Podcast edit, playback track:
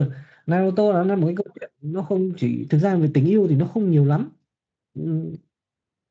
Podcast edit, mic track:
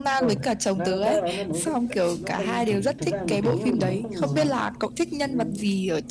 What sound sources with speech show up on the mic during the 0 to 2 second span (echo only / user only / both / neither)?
both